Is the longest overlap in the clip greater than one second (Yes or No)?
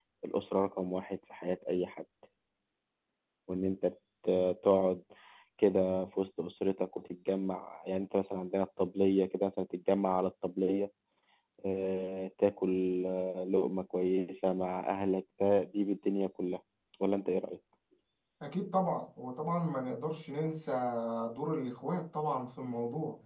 No